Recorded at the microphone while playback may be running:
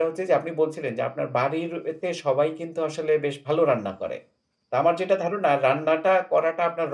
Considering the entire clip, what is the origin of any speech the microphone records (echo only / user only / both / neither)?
user only